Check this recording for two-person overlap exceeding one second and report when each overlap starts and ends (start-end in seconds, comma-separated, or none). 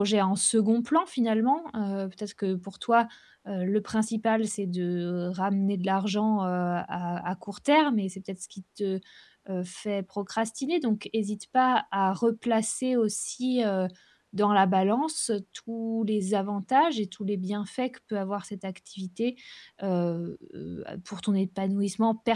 none